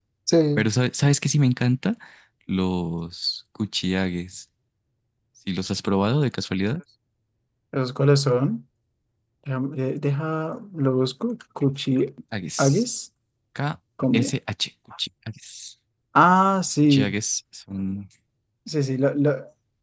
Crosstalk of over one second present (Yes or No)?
No